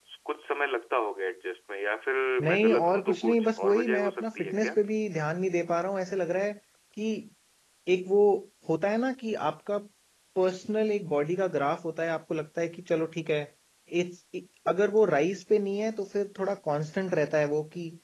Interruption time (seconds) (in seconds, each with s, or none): 2.4 s